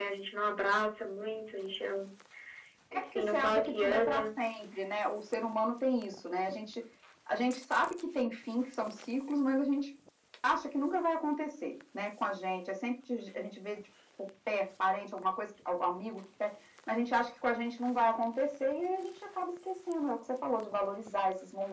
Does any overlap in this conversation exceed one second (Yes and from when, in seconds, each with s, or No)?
Yes, from 2.9 s